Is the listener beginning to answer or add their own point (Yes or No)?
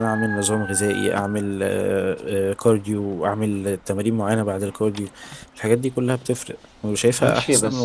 Yes